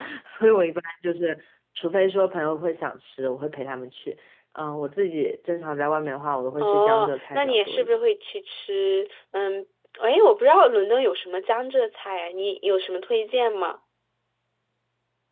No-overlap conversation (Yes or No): No